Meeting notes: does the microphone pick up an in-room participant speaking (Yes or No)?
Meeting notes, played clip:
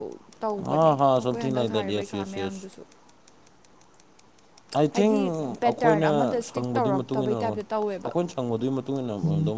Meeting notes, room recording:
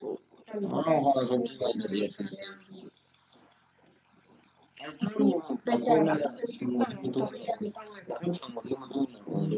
No